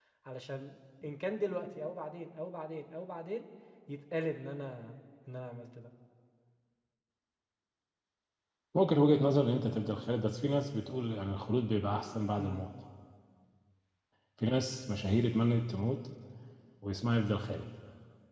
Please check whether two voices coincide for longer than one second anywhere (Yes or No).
No